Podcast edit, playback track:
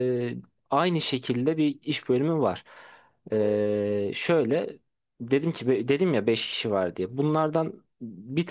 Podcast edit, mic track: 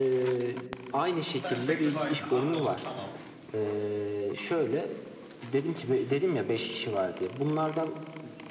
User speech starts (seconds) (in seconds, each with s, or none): 1.4 s